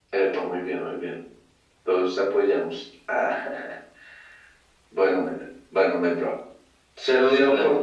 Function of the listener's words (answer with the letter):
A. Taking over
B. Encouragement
B